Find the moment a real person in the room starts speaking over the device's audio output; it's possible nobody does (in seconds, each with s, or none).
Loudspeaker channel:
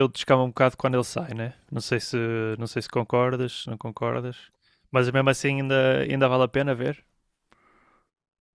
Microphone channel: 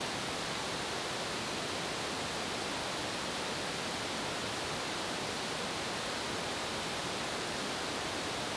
none